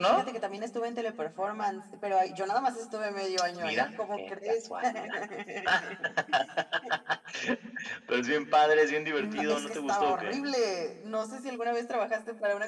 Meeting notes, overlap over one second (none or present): present